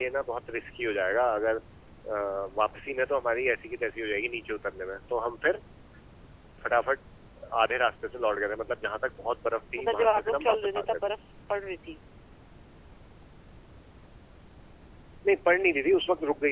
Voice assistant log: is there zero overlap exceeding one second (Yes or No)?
No